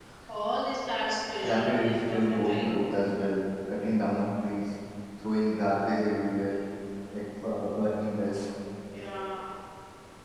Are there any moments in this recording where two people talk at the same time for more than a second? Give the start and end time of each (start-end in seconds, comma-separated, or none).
1.4-2.7